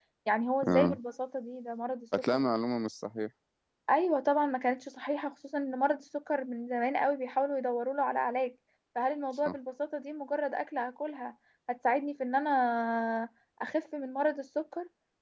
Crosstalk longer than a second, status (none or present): none